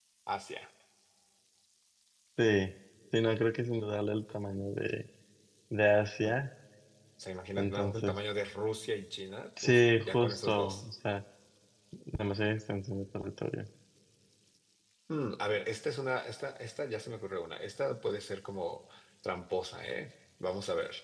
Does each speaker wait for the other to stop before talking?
No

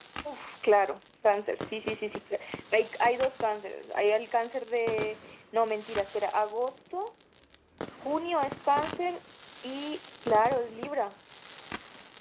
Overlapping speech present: No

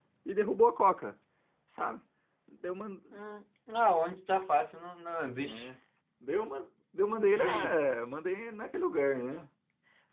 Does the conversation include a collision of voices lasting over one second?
No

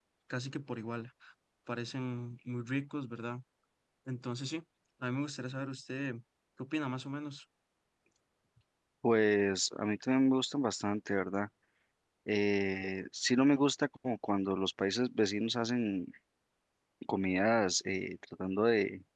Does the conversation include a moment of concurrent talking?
No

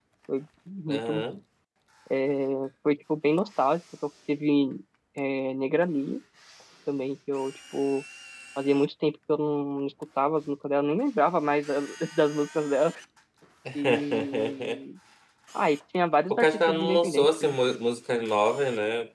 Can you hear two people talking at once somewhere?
Yes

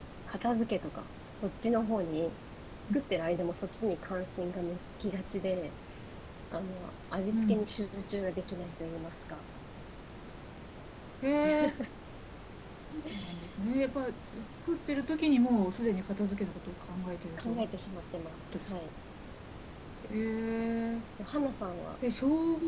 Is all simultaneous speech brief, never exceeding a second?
Yes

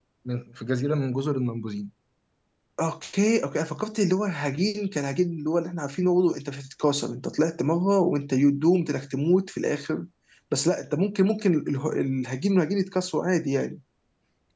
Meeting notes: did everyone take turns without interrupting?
Yes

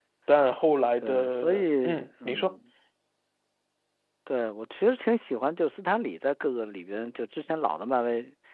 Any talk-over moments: Yes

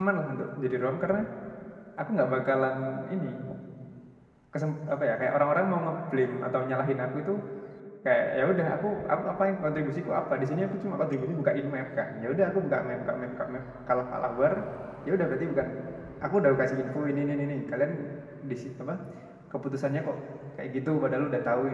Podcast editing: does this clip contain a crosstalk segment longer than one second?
No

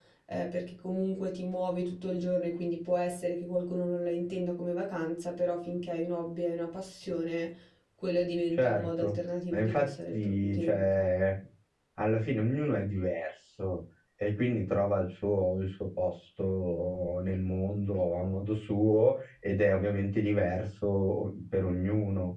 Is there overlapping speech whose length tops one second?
Yes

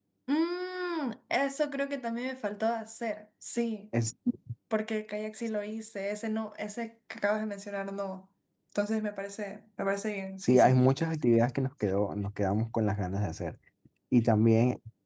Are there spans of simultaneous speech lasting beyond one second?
No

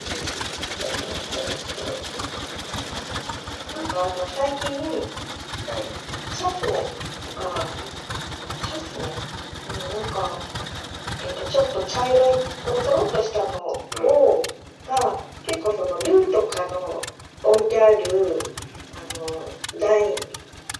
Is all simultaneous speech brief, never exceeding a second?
Yes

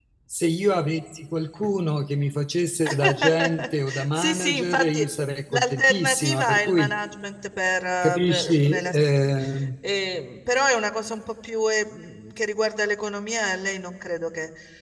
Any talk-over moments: Yes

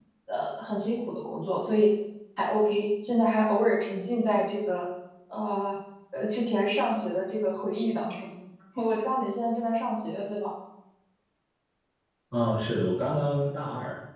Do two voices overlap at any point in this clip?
No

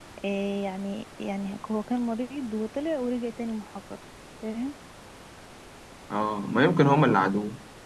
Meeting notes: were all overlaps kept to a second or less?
Yes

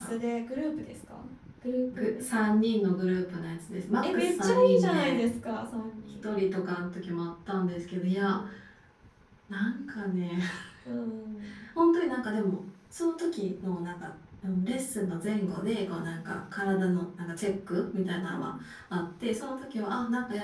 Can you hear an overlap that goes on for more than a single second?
Yes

